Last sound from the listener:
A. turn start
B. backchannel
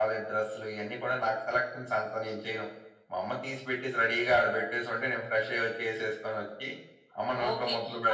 A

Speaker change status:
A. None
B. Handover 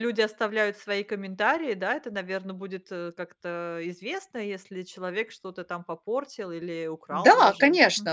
B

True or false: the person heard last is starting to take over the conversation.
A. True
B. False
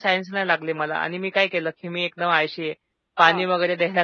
B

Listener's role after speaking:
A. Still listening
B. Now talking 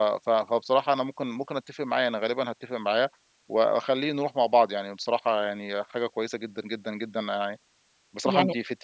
A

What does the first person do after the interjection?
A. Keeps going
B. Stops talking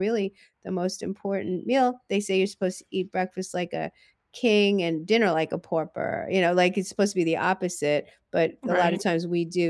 A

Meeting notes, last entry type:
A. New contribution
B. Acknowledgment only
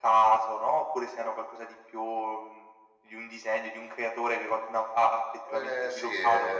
A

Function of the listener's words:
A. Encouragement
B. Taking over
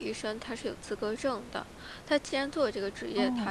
A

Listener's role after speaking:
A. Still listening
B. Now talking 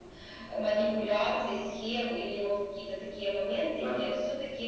A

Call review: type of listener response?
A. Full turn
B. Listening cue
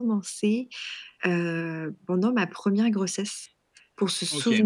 B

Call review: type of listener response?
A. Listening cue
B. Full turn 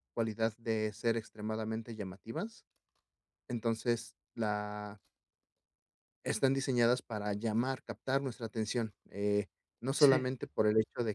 A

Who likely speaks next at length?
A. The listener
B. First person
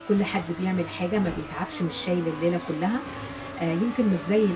B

